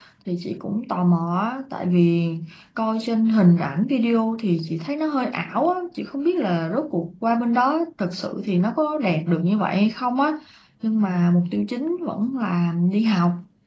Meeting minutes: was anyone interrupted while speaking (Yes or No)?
No